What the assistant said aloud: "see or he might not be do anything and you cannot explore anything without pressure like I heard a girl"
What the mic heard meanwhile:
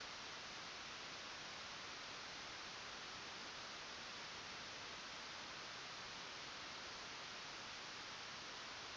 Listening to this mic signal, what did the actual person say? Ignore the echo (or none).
none